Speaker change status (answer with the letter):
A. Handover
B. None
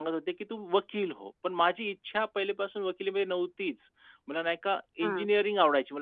B